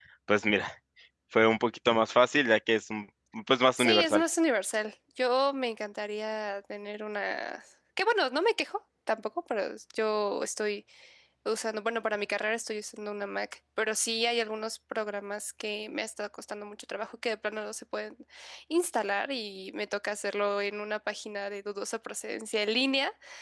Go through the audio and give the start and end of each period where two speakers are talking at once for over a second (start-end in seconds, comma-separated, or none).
none